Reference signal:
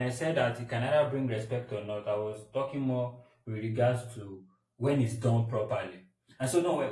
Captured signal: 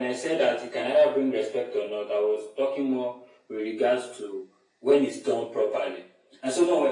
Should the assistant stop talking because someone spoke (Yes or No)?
No